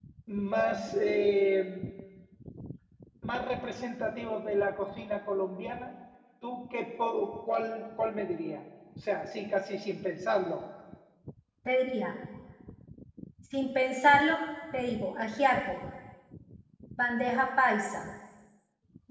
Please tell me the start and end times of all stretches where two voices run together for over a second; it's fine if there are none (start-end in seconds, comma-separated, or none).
none